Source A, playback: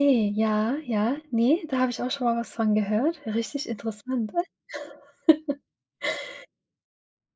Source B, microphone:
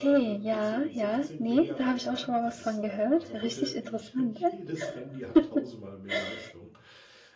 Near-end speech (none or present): present